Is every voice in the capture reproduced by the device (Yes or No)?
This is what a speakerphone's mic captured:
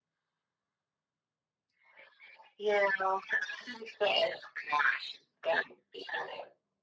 Yes